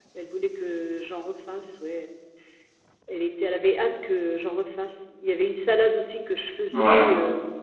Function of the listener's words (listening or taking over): listening